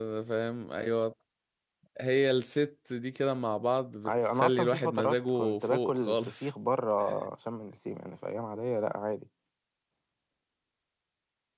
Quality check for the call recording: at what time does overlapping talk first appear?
4.0 s

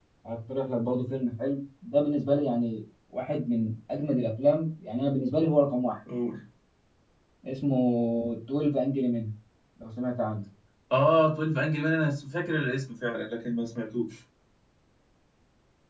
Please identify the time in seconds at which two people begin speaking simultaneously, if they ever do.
none

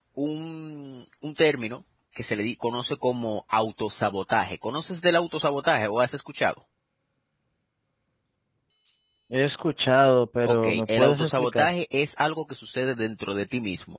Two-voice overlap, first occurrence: 10.4 s

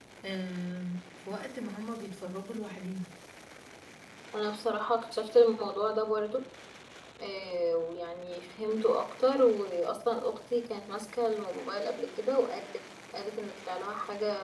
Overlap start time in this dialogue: none

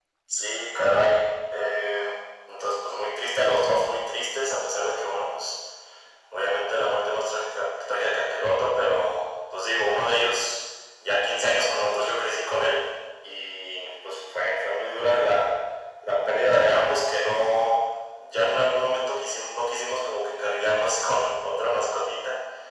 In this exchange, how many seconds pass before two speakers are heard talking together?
none

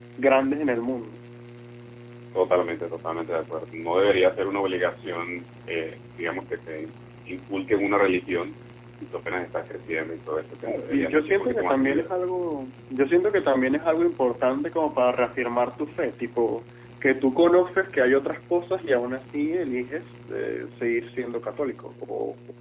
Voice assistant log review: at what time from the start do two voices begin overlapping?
10.9 s

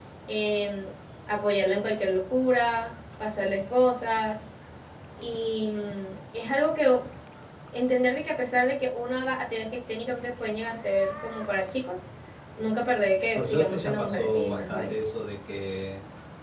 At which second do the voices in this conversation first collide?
13.3 s

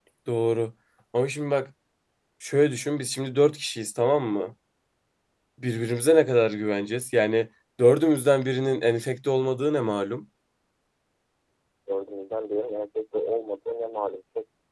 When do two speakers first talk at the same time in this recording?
none

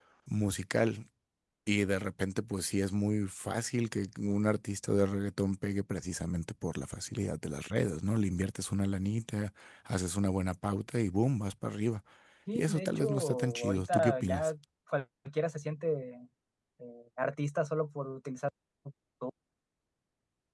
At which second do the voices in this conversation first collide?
12.6 s

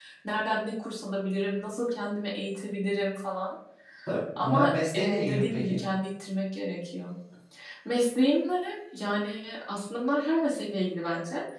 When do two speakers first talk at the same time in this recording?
4.4 s

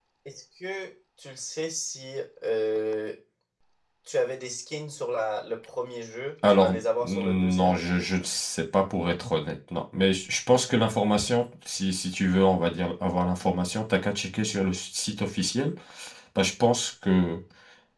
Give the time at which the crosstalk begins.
6.4 s

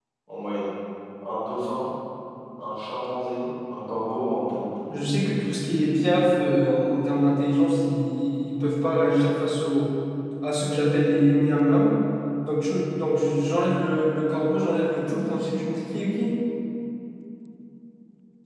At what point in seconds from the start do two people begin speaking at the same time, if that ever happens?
none

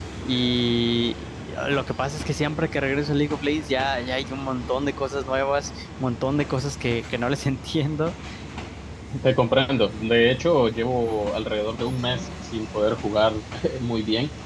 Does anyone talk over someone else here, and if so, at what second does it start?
none

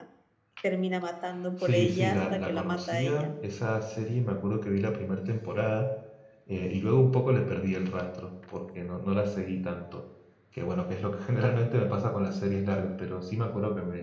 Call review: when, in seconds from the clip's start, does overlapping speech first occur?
1.6 s

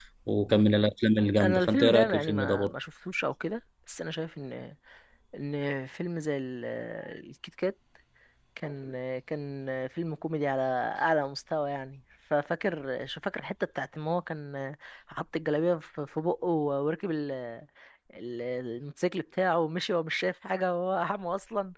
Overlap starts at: 1.4 s

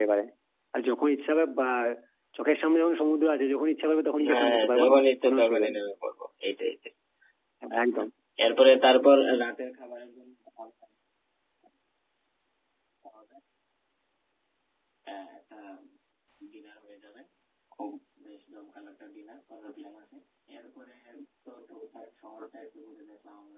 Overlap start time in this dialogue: 4.2 s

